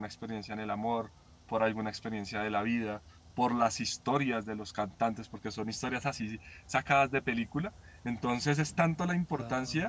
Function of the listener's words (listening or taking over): listening